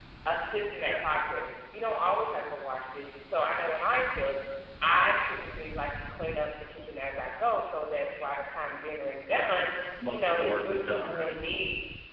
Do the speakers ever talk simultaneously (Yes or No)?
Yes